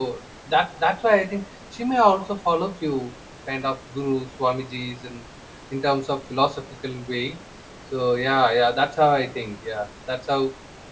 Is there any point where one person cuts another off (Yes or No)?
No